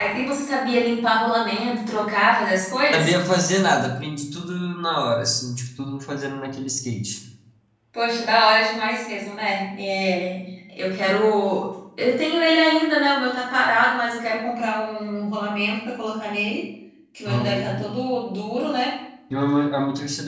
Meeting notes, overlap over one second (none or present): none